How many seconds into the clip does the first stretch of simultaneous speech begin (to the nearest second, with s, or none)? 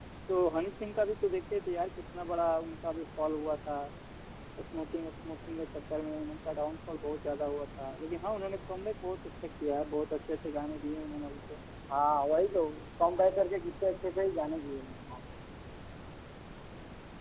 none